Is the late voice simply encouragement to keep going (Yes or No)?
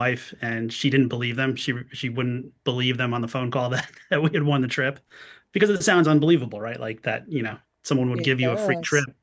Yes